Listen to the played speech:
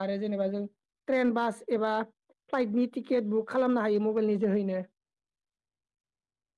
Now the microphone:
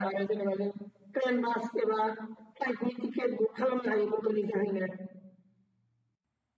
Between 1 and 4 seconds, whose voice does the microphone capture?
echo only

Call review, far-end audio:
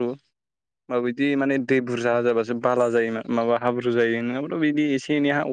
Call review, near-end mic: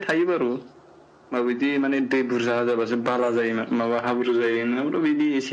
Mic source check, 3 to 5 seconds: echo only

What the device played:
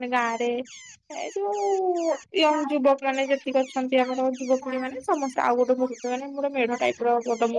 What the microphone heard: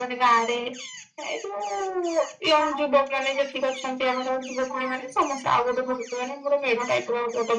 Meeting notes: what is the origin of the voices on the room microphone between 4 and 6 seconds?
echo only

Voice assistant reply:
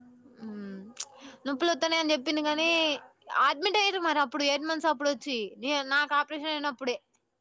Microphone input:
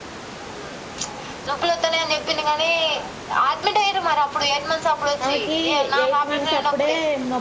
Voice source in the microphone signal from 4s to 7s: both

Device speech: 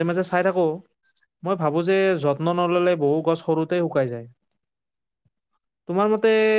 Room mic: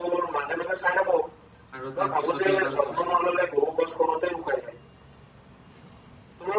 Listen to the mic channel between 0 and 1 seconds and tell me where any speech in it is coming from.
echo only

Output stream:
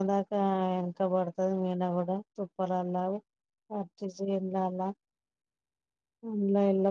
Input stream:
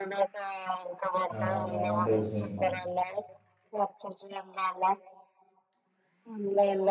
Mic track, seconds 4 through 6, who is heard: echo only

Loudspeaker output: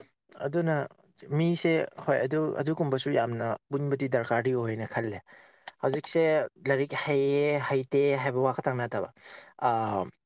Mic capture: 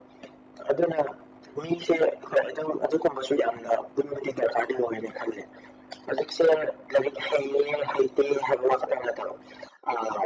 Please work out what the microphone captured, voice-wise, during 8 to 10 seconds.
echo only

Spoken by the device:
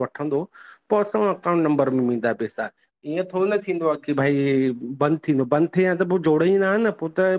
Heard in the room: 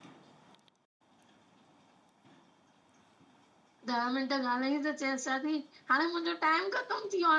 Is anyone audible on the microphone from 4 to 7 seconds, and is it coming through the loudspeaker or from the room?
user only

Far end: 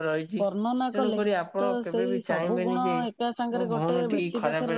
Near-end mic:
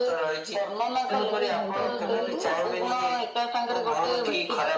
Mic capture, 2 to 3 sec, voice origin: both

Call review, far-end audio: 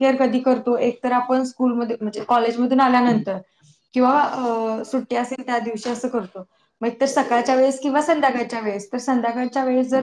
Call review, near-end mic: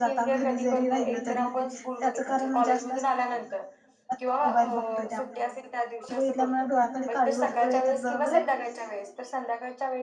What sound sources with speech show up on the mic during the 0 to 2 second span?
both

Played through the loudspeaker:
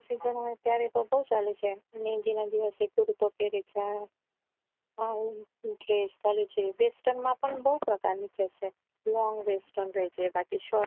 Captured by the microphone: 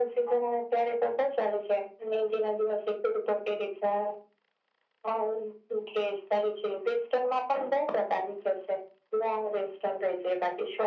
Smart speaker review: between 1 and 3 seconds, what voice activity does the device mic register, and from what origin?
echo only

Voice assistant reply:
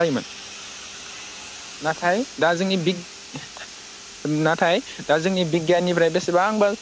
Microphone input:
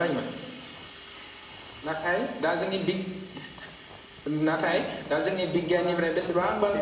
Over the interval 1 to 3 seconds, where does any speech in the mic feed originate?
echo only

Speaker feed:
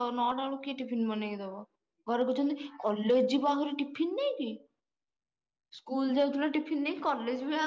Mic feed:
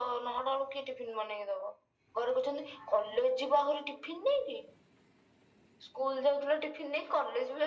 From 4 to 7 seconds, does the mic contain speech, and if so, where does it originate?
echo only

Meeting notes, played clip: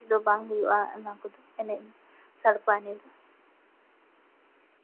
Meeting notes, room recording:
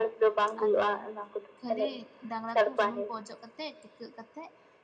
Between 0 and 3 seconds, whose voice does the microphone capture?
both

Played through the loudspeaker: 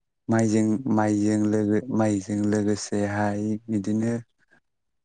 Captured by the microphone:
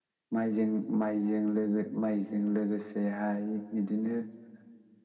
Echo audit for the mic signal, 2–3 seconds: echo only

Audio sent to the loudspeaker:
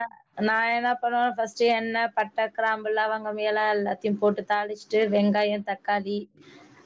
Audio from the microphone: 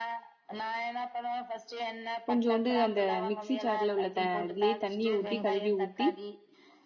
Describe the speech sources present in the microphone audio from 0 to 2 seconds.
echo only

